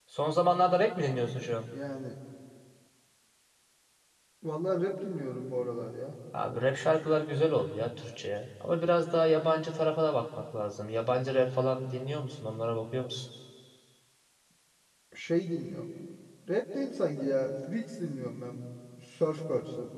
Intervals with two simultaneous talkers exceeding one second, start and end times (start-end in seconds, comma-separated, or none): none